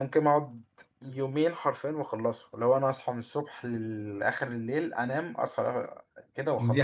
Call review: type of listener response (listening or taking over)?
taking over